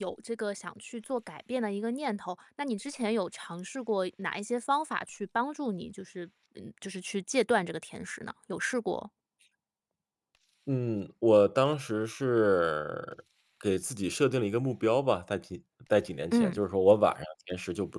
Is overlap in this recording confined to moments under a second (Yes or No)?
Yes